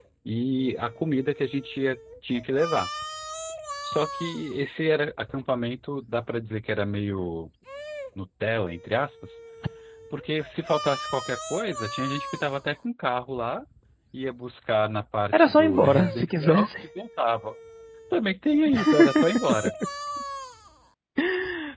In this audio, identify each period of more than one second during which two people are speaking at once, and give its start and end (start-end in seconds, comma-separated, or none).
15.3-16.7